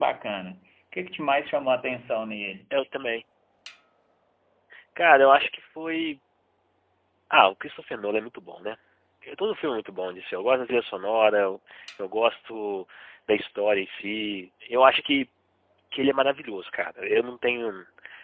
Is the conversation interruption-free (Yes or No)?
Yes